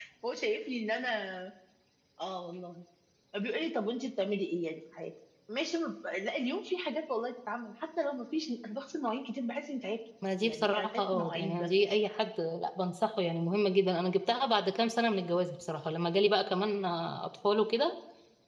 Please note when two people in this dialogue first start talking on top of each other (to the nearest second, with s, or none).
10 s